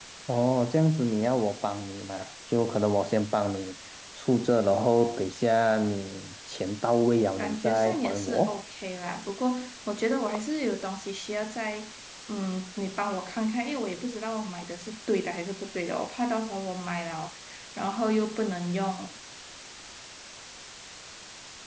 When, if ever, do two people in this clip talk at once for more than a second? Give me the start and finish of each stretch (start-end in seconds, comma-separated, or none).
7.4-8.6